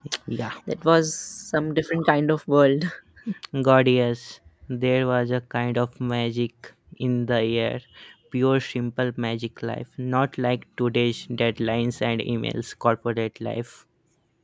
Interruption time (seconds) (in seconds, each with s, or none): none